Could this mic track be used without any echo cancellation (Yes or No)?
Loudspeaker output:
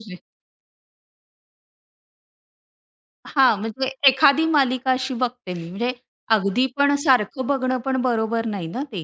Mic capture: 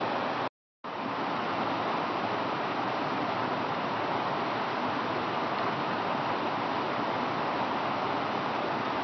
Yes